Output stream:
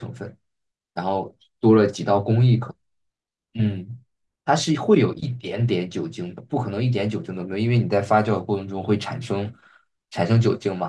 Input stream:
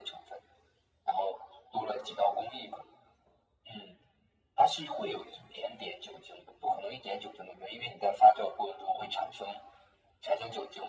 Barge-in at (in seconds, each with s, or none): none